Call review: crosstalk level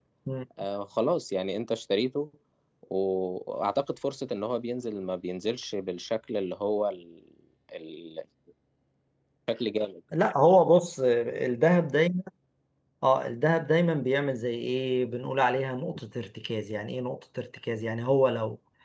none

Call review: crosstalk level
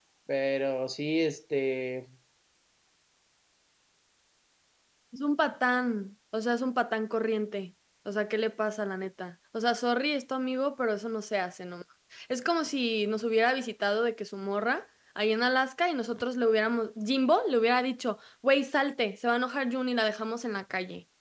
none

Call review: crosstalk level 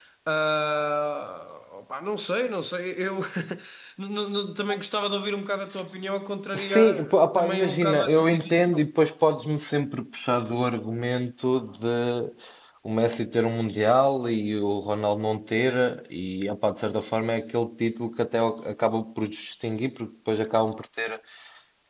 present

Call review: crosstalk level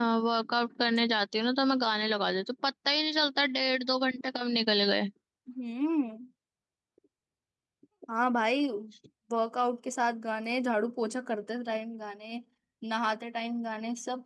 none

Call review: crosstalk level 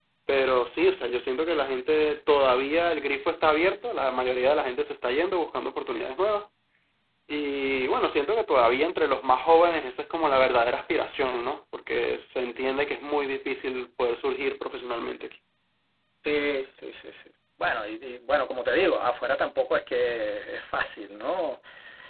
none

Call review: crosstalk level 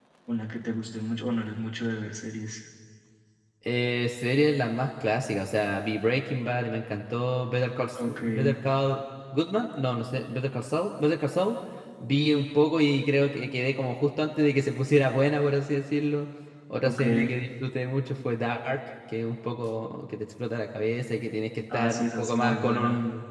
present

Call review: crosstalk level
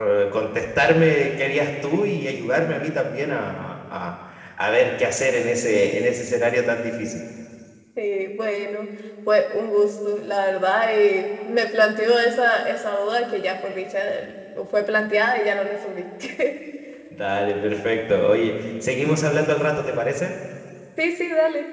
none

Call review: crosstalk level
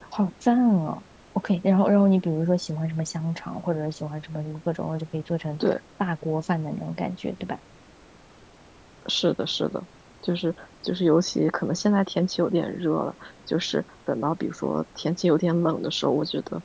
none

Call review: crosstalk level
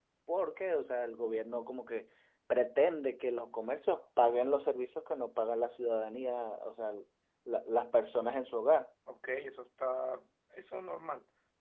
none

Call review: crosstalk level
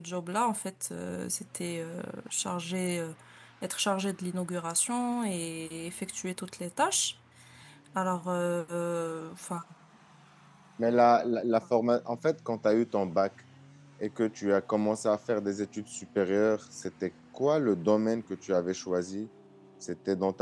none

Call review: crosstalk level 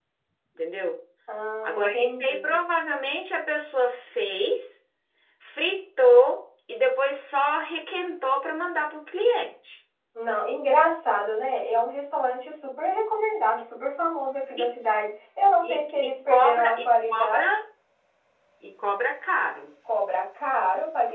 present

